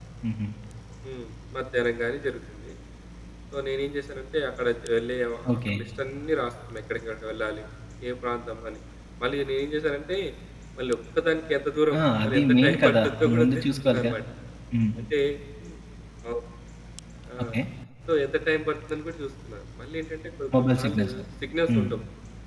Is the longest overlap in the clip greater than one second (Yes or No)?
Yes